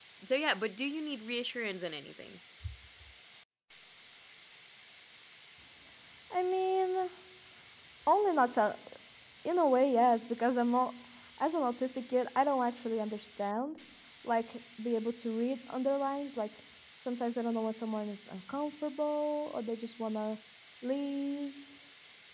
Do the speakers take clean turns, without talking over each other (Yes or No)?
Yes